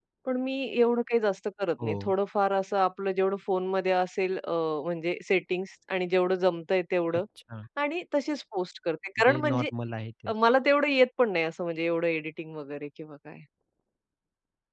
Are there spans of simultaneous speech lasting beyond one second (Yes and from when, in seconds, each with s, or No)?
No